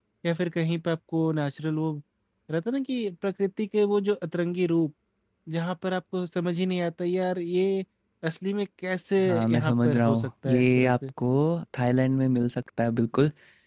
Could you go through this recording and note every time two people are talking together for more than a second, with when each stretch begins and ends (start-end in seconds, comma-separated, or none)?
9.2-10.9